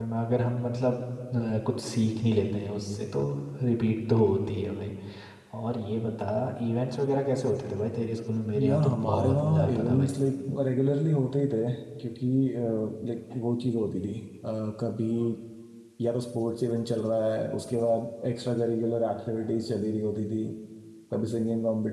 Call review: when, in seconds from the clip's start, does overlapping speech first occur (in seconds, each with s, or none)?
8.5 s